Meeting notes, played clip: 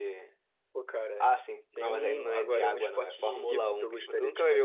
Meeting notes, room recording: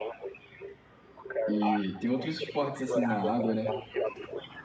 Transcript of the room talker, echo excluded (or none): E tem outros esportes assim na água, né?